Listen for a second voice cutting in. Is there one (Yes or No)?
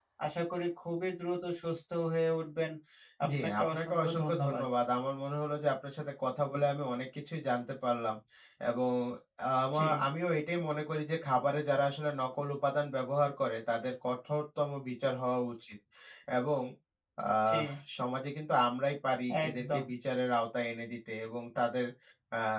Yes